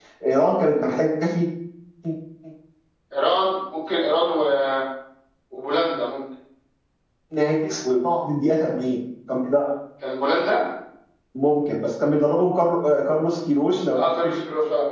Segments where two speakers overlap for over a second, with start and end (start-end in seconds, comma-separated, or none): none